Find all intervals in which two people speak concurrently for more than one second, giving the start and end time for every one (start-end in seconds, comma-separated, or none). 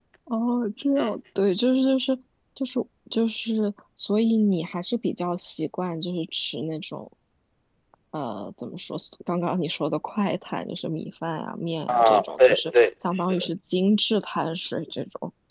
11.9-13.5